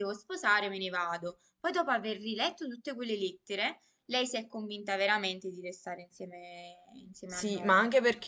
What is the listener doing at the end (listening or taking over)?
taking over